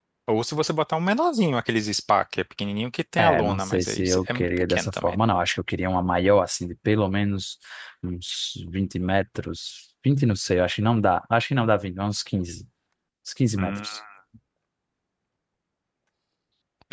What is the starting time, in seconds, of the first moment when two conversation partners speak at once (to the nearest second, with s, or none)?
3 s